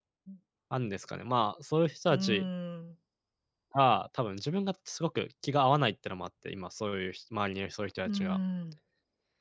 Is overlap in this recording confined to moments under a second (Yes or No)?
Yes